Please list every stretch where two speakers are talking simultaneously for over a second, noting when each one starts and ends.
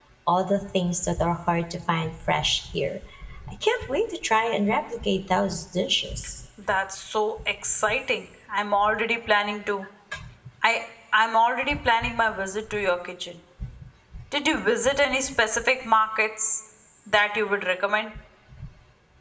none

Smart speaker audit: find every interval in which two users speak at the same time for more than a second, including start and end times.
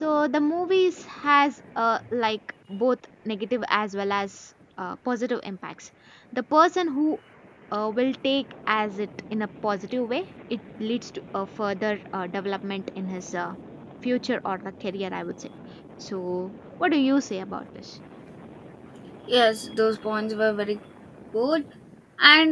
none

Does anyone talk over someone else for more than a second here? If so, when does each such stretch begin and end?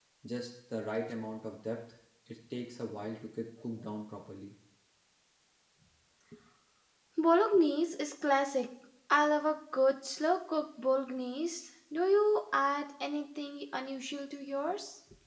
none

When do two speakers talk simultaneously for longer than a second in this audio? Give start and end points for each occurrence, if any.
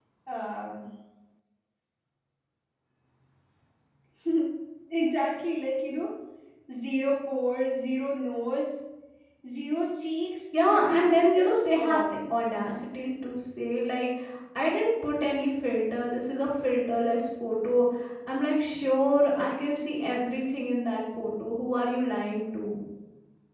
10.6-12.0

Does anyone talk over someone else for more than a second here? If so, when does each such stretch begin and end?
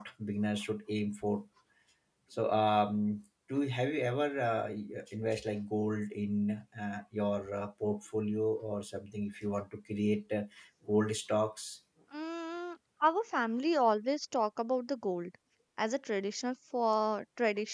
none

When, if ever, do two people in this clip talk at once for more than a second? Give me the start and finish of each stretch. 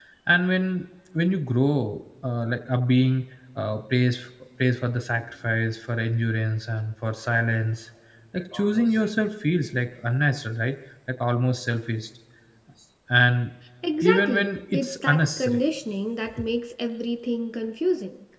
14.0-15.6

